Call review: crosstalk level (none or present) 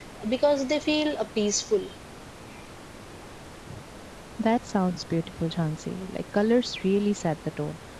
none